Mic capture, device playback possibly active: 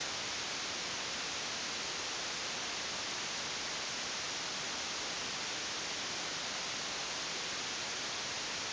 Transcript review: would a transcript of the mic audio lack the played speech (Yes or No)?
Yes